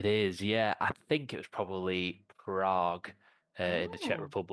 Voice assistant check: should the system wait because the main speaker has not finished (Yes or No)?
Yes